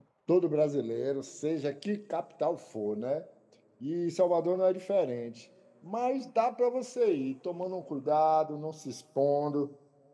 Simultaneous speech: No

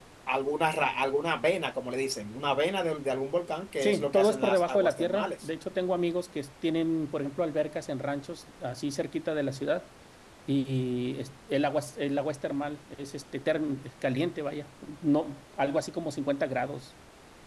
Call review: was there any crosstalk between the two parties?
Yes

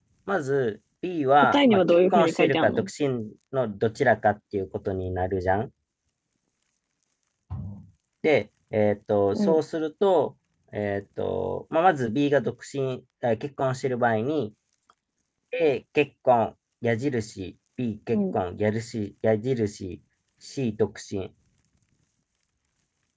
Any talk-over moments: Yes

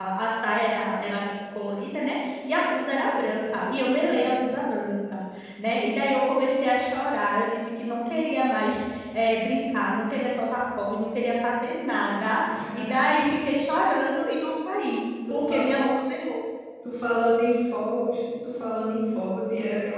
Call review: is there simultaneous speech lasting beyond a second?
No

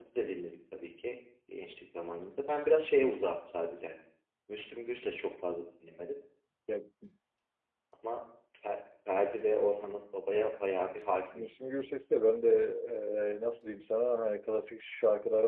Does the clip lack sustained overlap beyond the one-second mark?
Yes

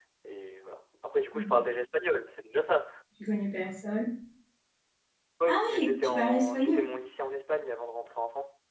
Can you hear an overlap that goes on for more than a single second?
Yes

